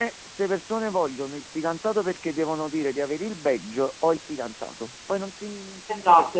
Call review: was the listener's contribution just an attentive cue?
No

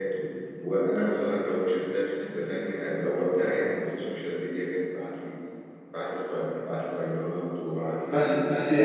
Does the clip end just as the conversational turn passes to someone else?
Yes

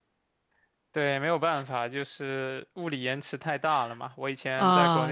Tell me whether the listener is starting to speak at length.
No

